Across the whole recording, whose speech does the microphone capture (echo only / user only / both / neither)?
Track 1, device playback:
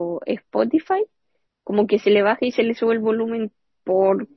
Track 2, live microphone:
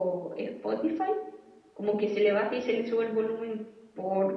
echo only